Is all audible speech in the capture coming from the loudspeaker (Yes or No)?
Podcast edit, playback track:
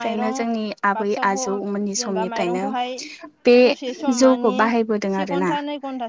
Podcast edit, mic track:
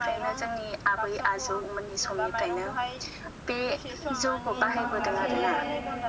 No